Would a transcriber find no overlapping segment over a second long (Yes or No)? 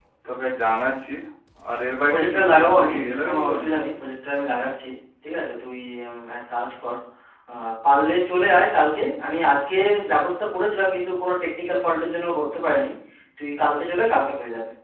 No